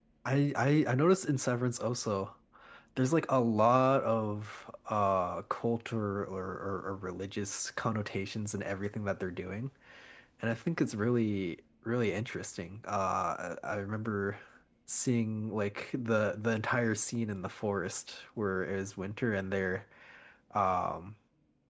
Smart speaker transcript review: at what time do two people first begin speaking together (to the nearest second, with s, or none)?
none